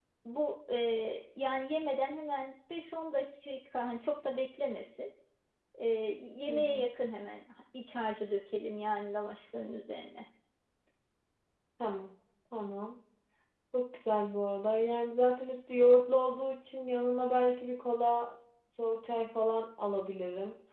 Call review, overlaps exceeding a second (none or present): none